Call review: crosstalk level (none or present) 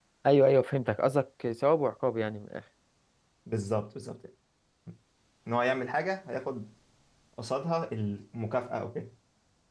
none